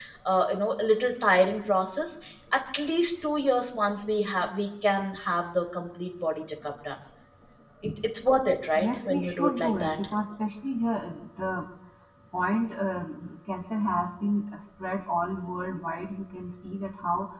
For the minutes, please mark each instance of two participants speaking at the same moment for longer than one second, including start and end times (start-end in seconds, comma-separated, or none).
8.8-10.0